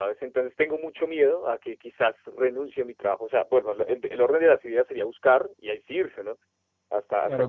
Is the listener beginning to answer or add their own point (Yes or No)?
Yes